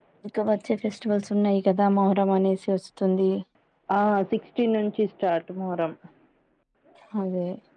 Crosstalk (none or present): none